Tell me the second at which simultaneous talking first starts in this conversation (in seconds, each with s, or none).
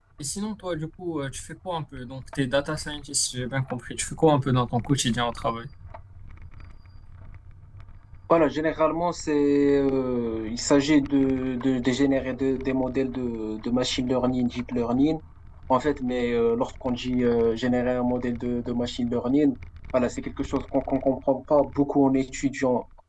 none